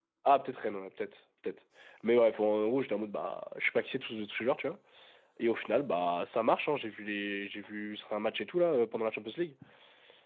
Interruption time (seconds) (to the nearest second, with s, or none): none